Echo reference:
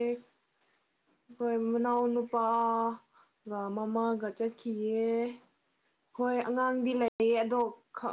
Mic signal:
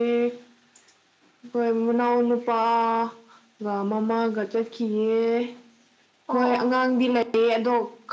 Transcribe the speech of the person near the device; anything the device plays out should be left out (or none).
ꯑꯣ ꯑꯣ